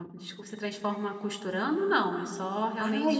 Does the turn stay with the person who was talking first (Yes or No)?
No